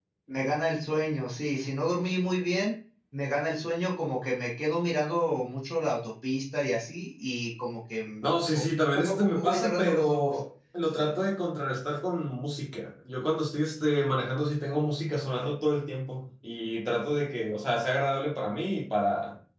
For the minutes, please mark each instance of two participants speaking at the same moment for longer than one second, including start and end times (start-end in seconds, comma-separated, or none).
8.2-10.4